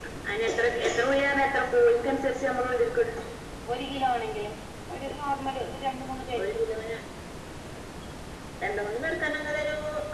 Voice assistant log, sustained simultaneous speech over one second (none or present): none